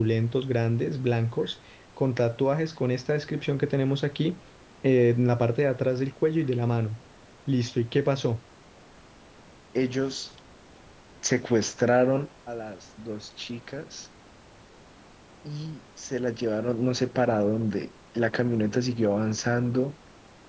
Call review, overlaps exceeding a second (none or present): none